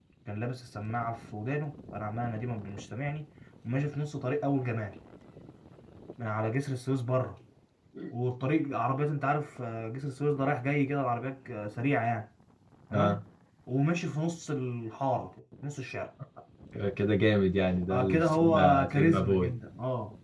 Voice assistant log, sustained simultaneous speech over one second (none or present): present